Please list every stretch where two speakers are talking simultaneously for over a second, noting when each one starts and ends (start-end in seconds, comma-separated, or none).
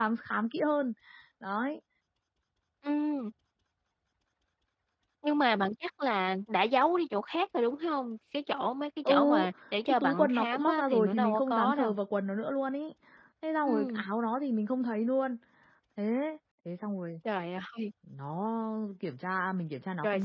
9.8-11.9